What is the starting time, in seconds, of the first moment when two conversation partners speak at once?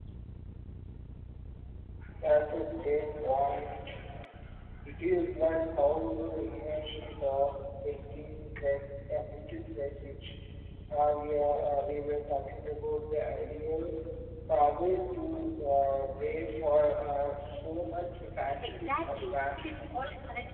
18.6 s

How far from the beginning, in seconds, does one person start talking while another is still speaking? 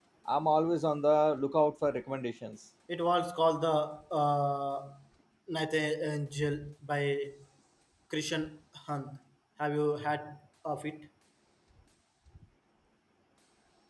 none

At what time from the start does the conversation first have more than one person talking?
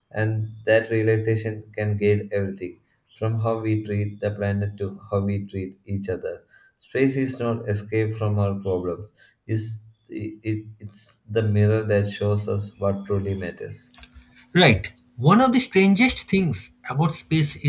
none

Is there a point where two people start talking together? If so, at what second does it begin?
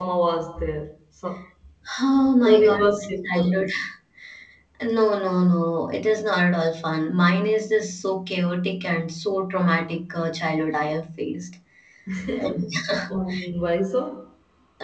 2.4 s

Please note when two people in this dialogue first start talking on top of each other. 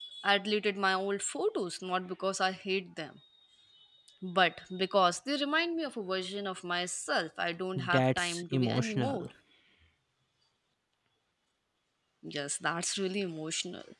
7.8 s

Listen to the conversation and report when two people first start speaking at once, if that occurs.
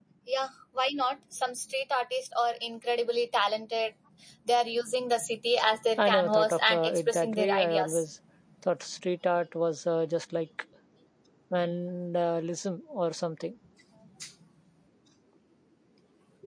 6.0 s

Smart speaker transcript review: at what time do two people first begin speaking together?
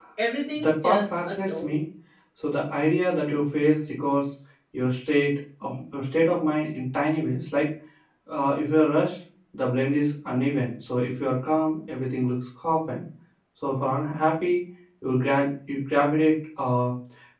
0.5 s

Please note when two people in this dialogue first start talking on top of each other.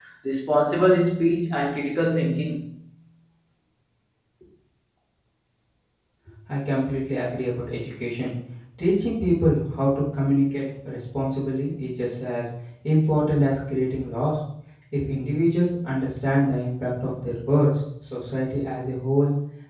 none

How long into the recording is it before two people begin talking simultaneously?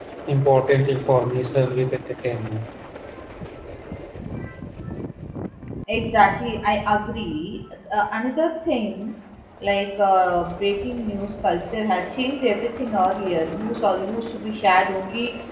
none

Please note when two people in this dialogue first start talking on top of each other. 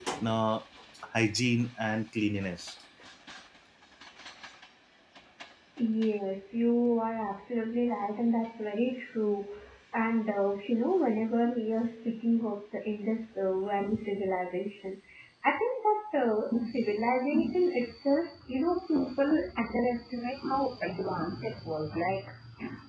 none

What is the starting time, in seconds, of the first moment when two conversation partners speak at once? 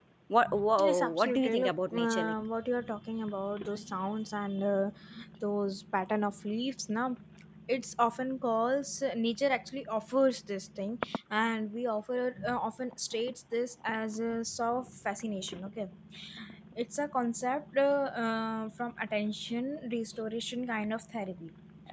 0.8 s

